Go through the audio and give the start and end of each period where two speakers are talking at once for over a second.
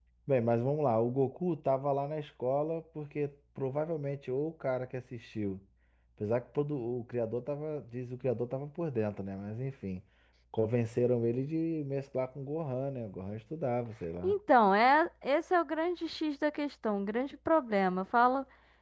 none

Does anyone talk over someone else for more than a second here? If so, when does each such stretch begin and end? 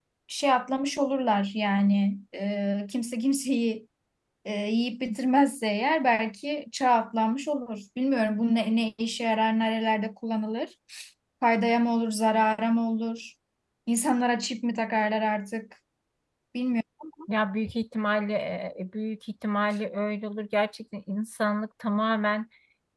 none

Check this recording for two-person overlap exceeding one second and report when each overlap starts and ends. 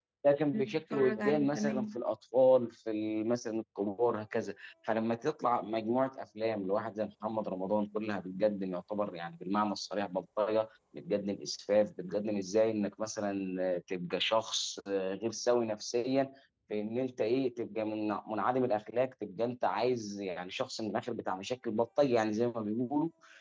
0.5-2.0

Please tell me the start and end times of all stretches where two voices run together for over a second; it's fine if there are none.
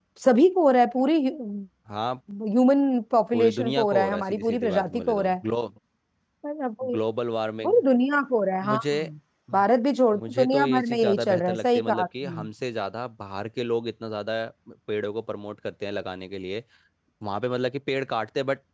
3.3-5.4, 10.2-12.4

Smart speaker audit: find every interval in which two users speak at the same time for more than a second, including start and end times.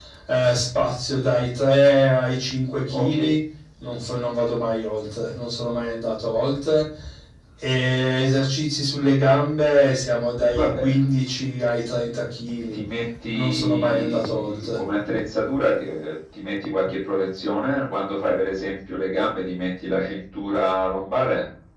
13.3-14.8

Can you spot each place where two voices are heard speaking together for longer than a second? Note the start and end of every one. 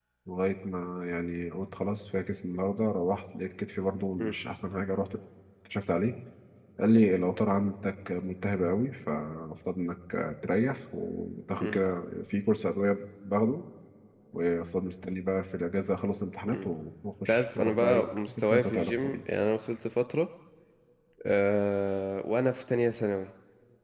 17.3-19.1

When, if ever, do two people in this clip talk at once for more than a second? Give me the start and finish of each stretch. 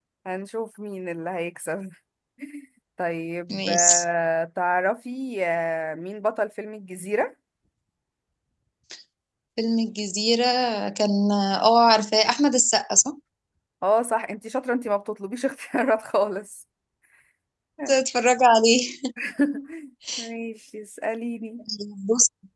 none

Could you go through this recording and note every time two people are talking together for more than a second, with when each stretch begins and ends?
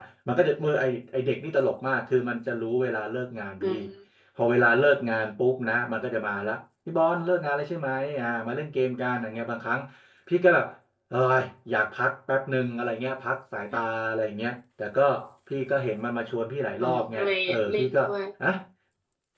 16.8-18.0

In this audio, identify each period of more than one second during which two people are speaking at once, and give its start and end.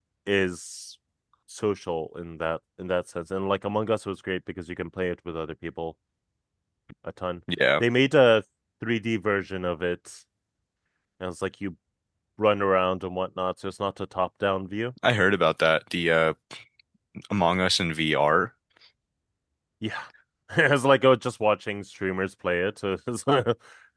none

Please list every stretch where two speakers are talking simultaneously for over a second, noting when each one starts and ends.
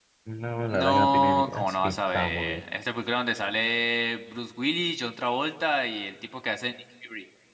0.7-2.6

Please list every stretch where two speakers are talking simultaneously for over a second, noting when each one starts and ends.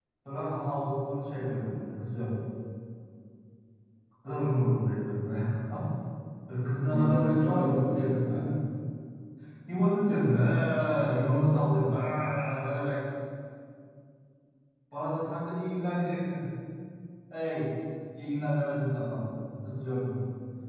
6.9-8.6

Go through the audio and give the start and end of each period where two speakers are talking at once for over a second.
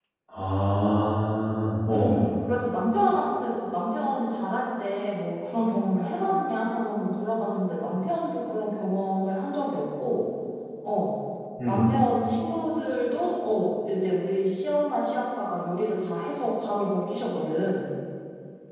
none

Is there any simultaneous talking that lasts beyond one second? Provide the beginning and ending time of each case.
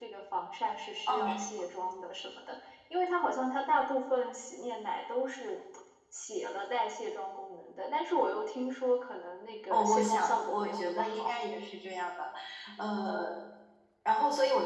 9.7-11.4

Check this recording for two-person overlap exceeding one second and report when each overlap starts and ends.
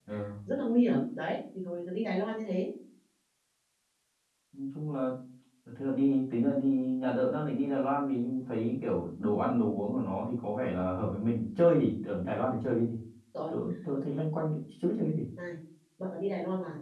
none

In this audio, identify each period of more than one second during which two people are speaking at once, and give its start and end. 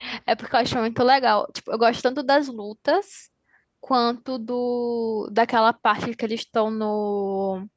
none

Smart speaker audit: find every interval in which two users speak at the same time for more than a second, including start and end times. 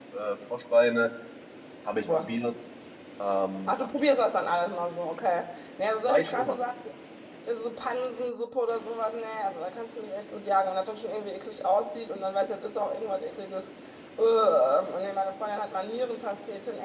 none

